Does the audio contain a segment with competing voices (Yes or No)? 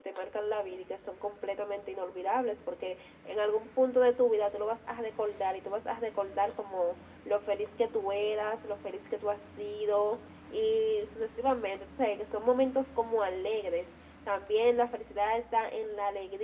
No